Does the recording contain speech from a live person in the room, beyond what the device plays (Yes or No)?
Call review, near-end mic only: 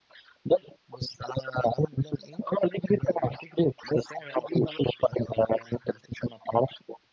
No